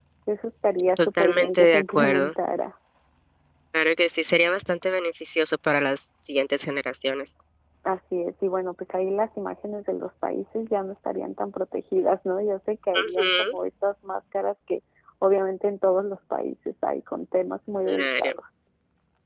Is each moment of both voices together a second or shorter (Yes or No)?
No